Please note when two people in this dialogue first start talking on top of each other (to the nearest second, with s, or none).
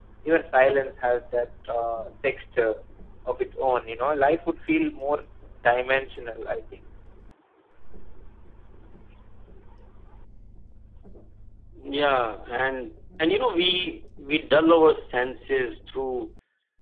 none